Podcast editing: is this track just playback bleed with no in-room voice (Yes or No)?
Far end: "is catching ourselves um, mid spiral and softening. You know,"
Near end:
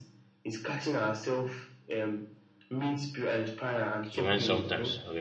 No